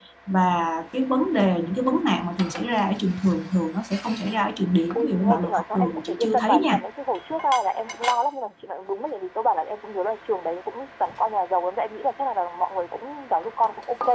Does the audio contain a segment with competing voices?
Yes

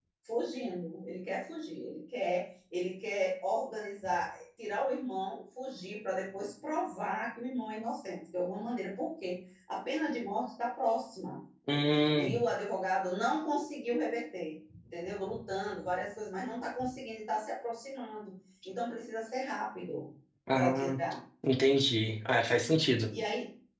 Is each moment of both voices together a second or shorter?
Yes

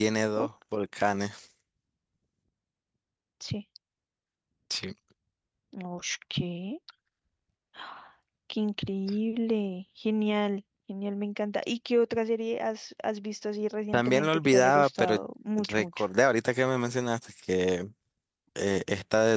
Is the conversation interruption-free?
No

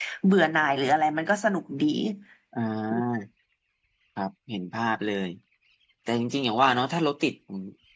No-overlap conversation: Yes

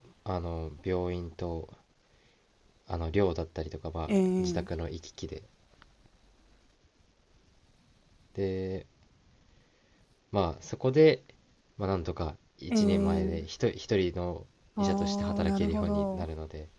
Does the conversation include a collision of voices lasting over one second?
Yes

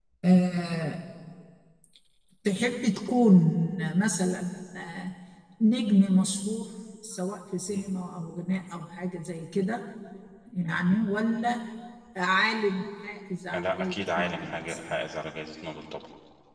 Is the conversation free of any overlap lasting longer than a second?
No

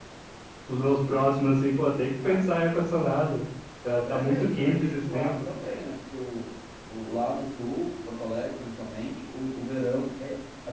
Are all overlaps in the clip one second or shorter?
No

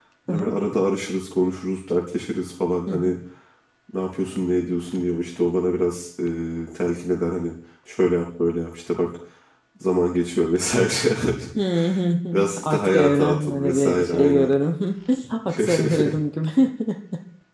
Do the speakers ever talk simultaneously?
Yes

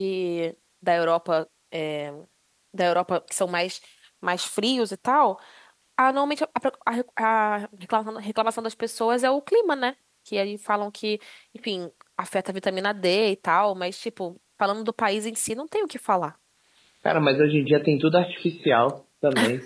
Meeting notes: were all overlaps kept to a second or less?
Yes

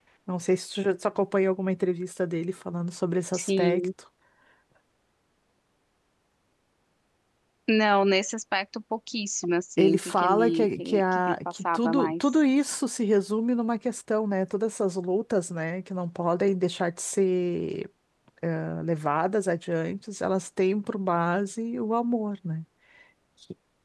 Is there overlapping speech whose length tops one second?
Yes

